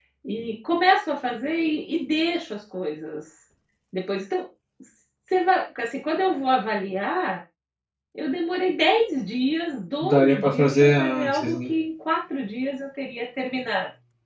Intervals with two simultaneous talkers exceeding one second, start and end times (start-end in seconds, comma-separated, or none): 10.0-11.7